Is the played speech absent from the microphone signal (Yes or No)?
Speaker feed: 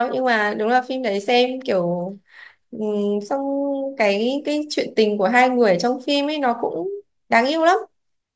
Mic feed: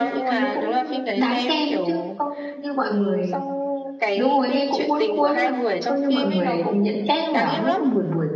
No